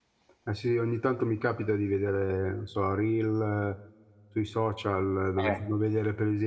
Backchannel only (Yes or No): Yes